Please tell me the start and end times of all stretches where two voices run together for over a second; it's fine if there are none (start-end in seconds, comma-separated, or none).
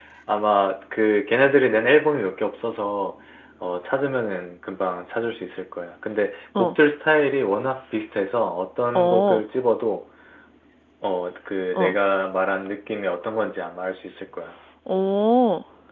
none